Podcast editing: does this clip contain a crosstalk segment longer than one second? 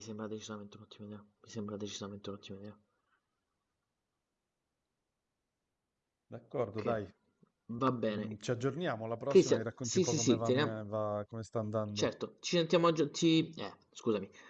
Yes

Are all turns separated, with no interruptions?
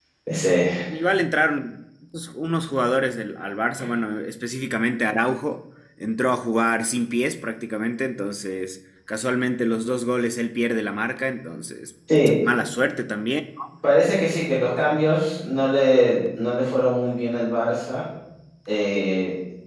Yes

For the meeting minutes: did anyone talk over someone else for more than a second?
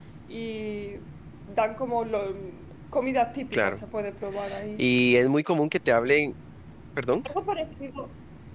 No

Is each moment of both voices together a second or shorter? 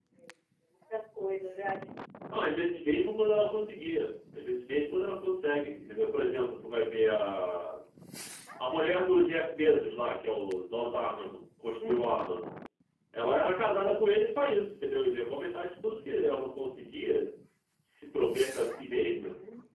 Yes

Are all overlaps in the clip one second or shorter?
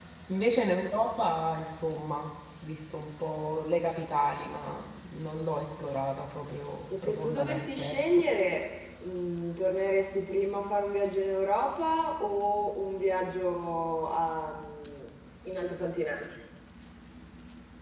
No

